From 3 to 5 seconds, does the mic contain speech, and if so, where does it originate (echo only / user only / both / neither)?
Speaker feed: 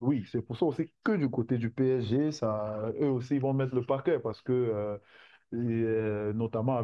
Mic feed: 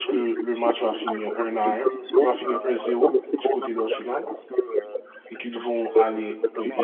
both